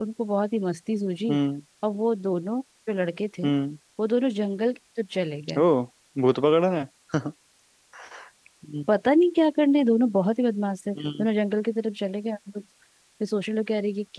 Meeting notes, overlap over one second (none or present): none